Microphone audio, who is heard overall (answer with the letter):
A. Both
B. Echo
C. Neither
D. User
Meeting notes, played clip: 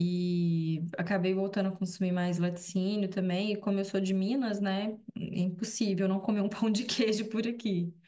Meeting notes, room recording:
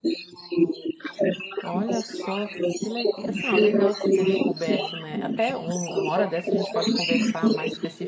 A